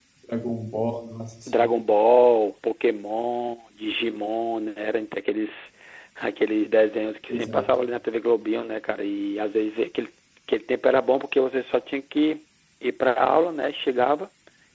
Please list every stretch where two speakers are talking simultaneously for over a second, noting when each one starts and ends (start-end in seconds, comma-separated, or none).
none